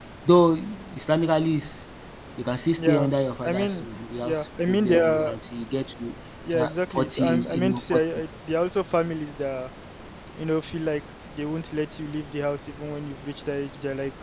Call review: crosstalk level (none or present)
present